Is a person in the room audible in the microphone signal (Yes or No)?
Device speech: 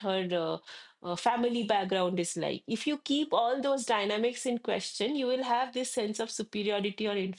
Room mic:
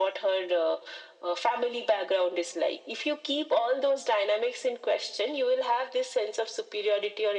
No